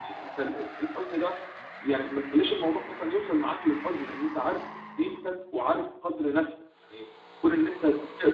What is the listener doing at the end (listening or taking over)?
listening